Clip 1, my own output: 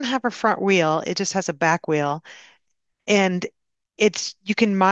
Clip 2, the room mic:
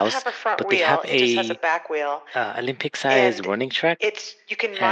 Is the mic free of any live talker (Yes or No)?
No